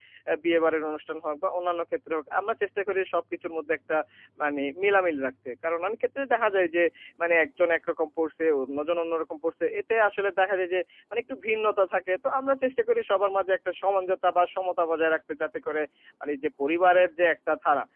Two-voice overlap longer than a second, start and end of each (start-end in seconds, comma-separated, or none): none